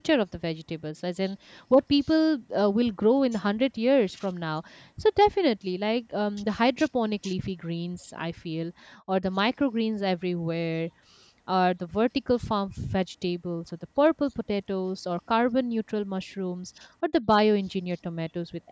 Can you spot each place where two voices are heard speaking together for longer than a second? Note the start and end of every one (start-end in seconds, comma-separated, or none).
none